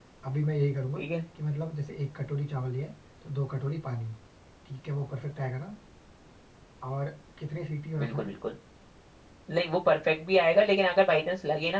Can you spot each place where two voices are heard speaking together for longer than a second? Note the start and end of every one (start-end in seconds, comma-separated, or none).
none